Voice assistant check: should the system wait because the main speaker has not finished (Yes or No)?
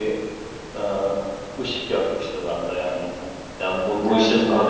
Yes